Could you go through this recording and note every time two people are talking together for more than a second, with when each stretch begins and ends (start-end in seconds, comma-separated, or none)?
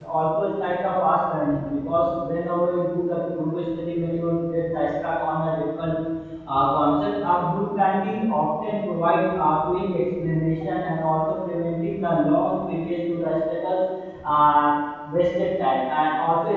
none